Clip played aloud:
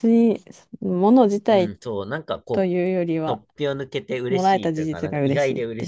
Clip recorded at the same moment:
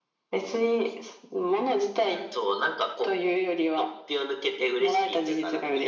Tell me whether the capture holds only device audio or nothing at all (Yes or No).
Yes